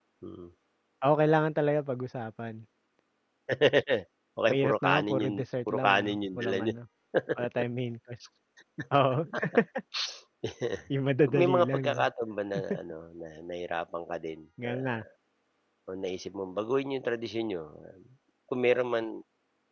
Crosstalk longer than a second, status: present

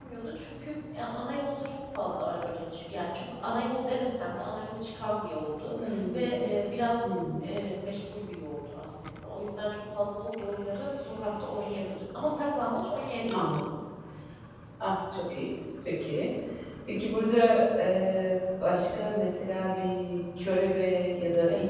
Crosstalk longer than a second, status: none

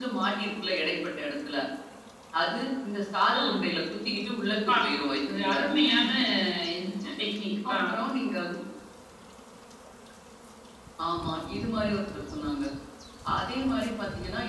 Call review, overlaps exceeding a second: none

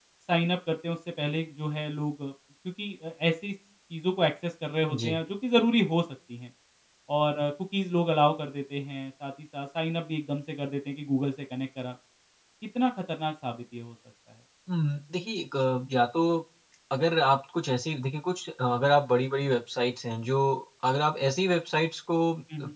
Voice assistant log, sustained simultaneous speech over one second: none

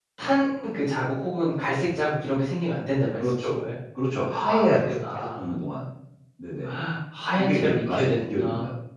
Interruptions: present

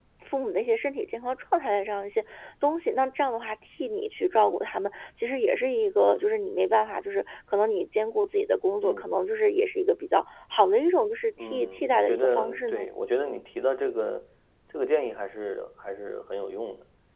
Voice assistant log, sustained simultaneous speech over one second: present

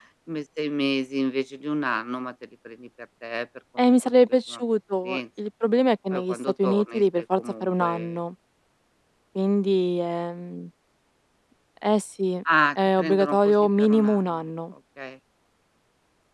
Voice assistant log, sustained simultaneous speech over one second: present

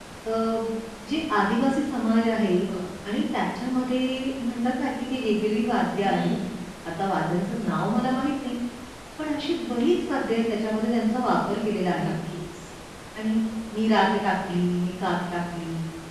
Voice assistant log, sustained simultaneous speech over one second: none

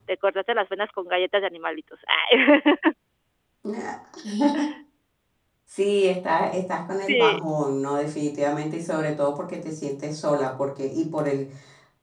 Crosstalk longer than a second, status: none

